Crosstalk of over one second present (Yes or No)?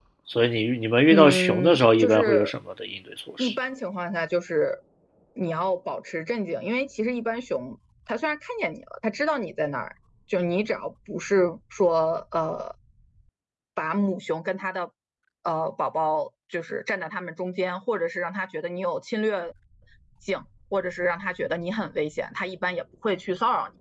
Yes